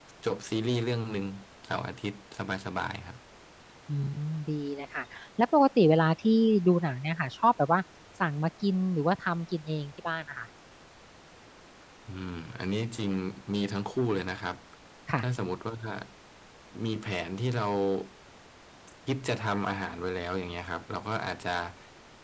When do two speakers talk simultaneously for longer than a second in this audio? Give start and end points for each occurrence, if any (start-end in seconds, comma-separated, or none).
none